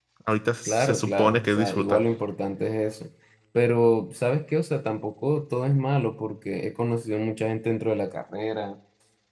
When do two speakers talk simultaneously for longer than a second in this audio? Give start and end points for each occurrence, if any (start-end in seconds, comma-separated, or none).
0.6-2.0